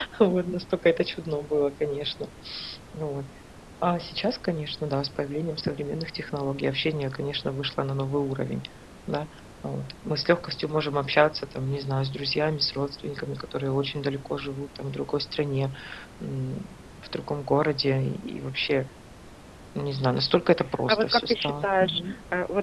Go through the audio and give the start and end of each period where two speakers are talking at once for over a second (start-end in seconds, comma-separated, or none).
20.9-22.1